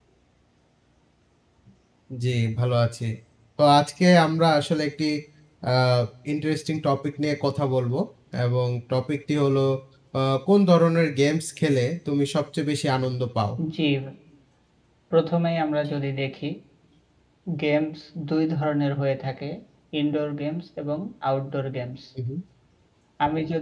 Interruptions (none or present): none